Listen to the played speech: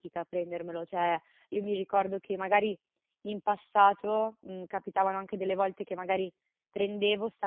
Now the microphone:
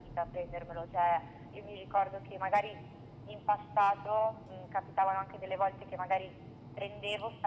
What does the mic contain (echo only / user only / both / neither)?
echo only